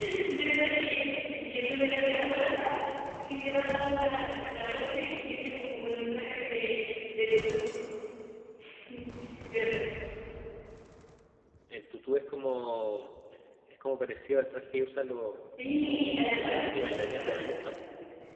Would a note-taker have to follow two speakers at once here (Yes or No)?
Yes